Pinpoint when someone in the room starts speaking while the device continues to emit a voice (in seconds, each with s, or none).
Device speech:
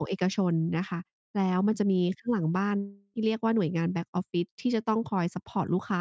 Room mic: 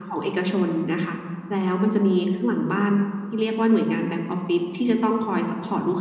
none